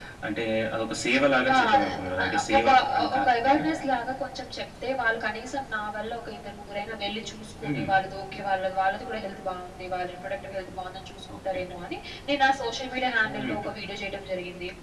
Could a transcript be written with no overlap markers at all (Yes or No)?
No